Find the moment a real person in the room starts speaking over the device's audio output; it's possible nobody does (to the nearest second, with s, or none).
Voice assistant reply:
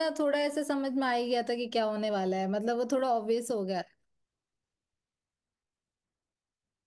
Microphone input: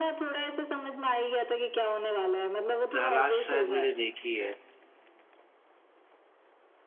3 s